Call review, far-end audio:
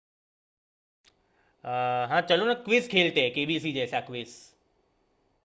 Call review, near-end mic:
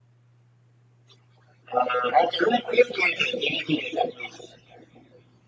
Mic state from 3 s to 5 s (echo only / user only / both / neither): echo only